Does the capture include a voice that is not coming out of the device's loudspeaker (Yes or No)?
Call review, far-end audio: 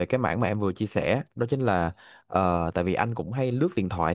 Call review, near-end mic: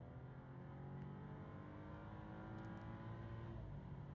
No